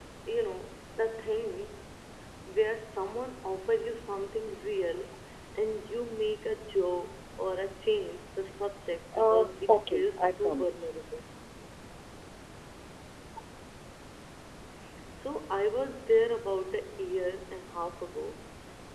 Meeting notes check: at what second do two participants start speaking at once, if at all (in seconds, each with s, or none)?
9.1 s